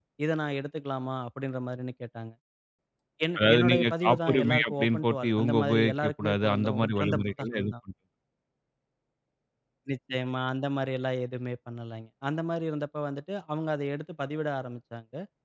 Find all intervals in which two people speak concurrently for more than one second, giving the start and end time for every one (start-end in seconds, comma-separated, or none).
3.4-7.7